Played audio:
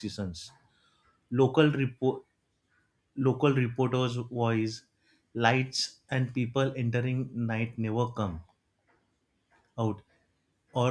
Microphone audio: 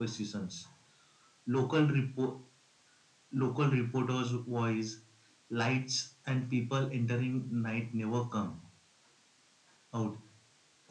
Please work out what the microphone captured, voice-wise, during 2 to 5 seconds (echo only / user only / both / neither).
echo only